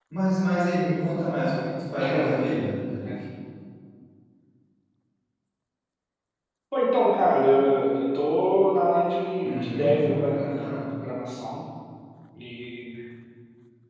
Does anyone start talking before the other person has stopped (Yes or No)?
Yes